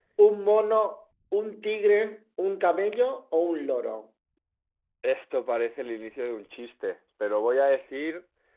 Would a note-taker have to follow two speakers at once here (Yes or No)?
No